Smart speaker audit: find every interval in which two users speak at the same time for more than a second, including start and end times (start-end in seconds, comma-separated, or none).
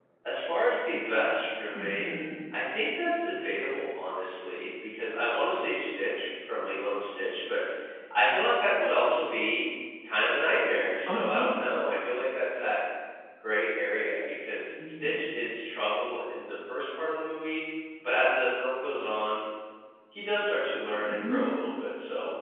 none